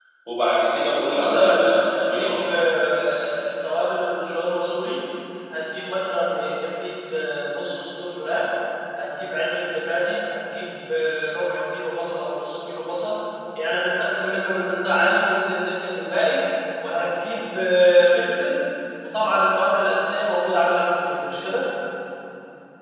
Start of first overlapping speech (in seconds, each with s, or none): 1.1 s